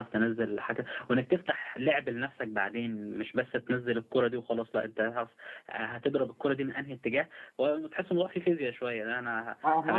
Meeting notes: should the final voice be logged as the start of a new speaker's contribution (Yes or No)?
No